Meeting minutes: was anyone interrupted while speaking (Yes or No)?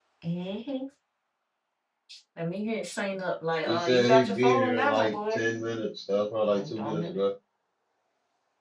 Yes